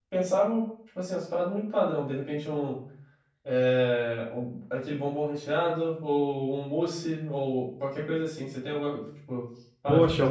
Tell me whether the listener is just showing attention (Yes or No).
No